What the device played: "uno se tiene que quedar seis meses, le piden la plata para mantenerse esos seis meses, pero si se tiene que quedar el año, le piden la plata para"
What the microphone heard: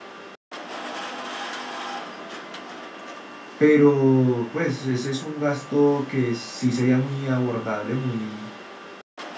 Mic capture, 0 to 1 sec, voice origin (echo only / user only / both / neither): neither